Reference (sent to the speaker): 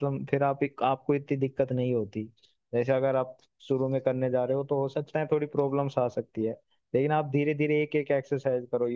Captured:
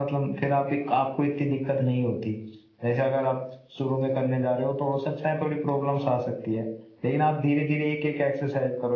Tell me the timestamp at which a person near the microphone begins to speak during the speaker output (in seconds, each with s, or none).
none